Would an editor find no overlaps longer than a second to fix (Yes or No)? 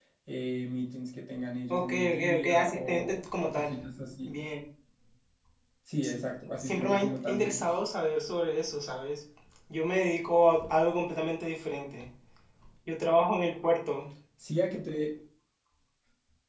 No